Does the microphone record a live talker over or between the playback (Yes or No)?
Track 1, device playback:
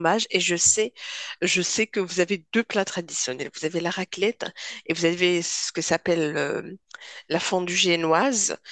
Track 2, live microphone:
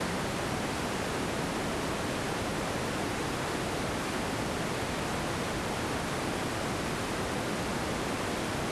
No